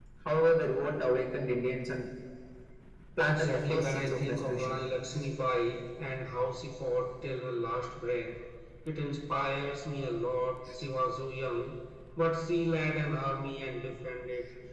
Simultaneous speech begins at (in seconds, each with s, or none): 3.2 s